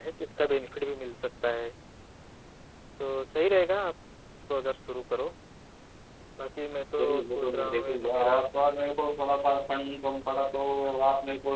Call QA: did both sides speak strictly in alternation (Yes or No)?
No